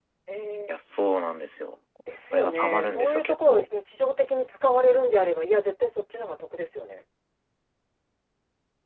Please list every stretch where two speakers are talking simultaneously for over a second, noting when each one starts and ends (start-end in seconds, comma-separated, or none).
2.3-3.7